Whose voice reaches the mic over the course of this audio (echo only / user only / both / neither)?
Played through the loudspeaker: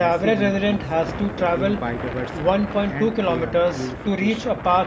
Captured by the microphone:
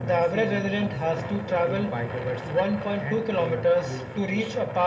echo only